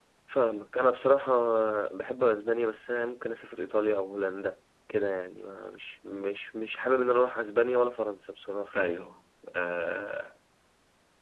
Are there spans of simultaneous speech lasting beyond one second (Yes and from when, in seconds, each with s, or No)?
No